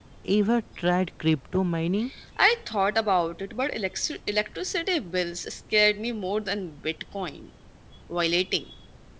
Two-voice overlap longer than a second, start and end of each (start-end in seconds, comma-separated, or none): none